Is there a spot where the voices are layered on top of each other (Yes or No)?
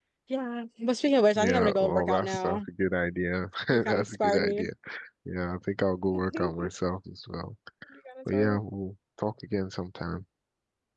Yes